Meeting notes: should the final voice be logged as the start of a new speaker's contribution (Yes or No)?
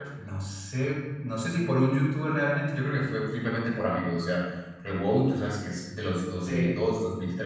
No